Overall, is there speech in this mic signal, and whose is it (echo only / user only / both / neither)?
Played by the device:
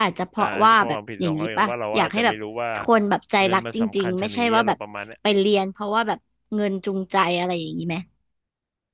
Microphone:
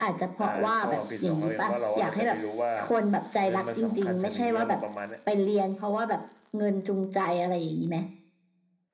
echo only